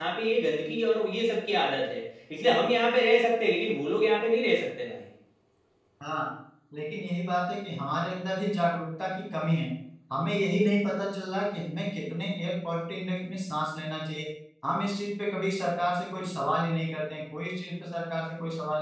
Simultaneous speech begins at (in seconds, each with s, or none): none